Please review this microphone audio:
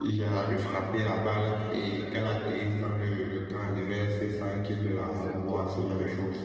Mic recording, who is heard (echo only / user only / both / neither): both